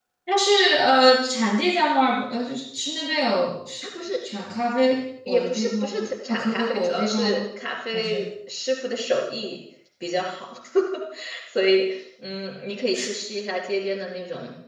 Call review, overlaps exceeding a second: present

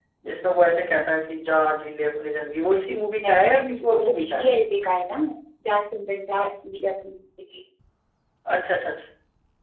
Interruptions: present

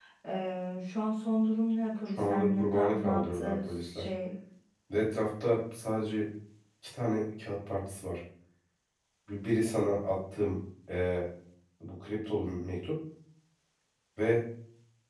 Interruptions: present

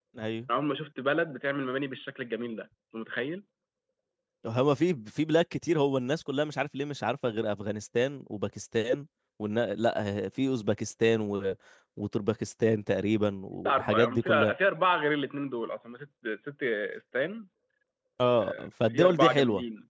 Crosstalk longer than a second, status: present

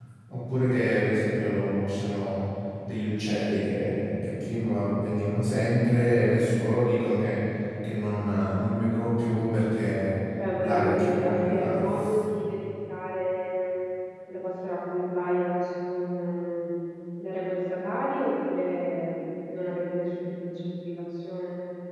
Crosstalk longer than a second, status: present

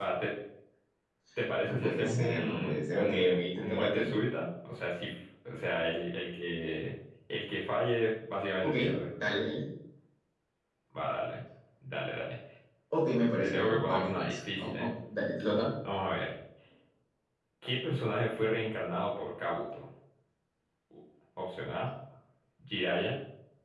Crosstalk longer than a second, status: present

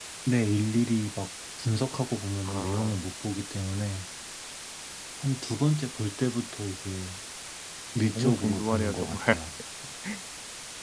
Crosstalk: present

